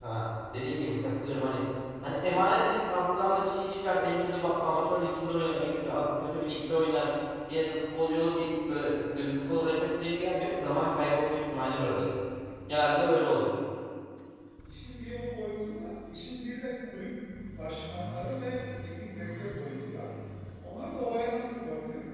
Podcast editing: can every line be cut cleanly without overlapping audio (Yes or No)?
Yes